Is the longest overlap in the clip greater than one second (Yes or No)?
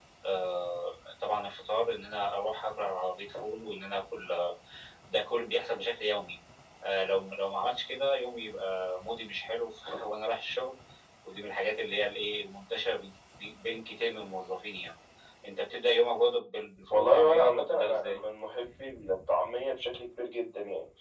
Yes